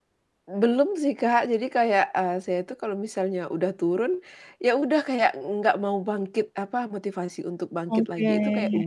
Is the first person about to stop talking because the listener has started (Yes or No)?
No